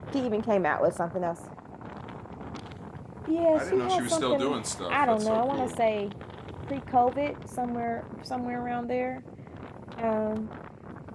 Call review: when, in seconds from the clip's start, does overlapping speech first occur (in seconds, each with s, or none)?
3.5 s